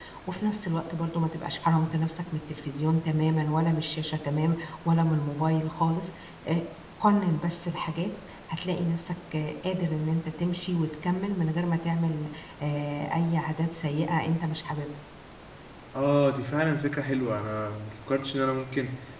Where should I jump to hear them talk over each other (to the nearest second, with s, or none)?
none